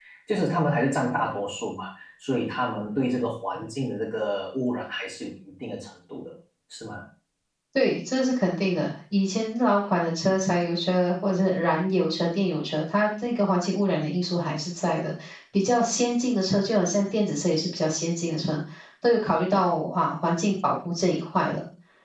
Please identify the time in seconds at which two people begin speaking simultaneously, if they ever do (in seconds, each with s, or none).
none